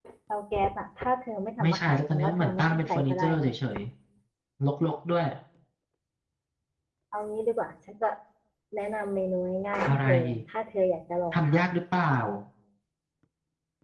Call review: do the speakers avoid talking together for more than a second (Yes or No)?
No